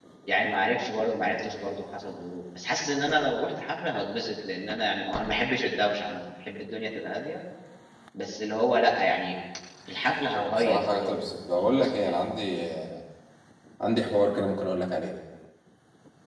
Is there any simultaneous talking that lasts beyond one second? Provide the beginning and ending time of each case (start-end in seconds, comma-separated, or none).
10.3-12.1